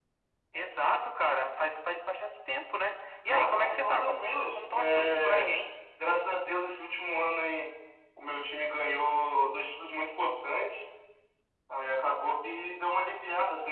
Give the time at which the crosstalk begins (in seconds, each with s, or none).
3.3 s